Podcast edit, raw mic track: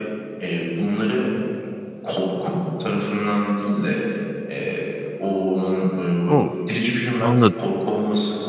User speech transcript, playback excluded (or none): O, anladım.